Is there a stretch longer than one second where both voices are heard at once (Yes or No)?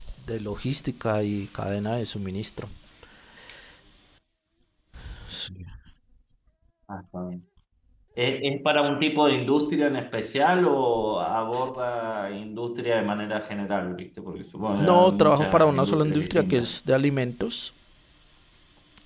Yes